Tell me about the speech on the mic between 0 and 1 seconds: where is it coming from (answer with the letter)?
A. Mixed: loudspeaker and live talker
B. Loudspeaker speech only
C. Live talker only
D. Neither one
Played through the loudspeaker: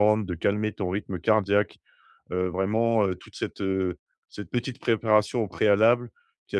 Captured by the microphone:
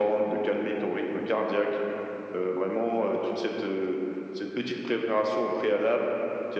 B